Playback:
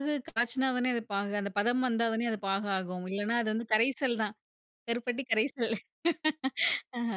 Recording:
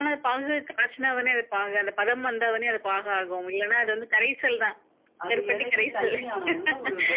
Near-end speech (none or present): present